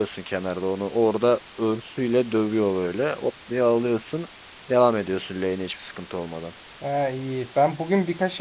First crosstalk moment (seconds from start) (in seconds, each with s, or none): none